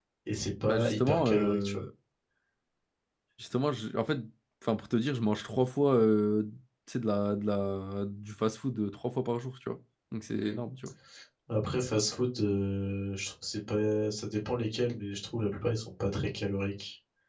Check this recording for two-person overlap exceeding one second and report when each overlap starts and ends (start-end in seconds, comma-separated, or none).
0.6-1.8